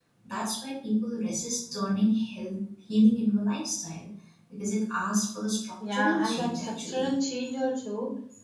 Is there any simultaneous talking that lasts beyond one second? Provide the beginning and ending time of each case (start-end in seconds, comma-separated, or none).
5.9-7.1